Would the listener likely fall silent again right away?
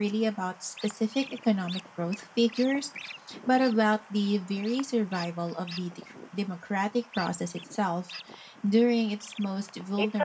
No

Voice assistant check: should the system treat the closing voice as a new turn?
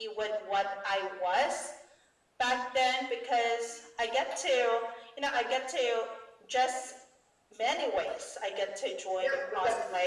Yes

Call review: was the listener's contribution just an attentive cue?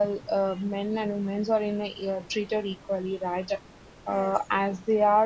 Yes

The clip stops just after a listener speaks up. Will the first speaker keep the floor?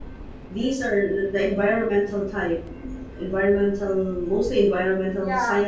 No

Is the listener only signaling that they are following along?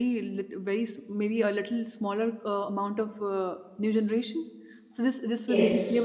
Yes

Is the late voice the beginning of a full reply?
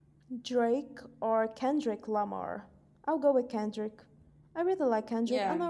No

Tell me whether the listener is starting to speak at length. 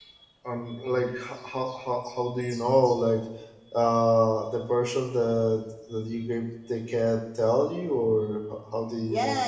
Yes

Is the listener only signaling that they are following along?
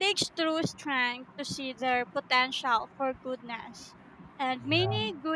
Yes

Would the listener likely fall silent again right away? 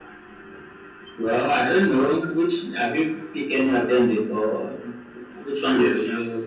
No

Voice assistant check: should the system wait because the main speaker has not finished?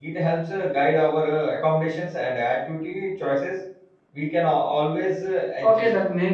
No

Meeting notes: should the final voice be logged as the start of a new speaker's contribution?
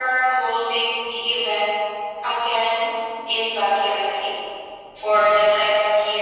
No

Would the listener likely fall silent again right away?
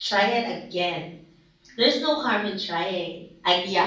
No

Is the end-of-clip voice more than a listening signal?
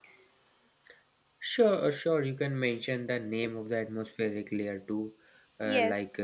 Yes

